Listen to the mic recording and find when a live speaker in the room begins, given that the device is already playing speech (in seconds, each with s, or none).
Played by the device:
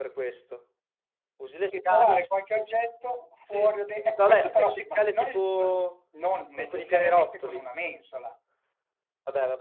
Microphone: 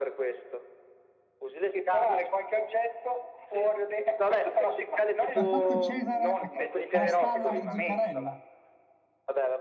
5.3 s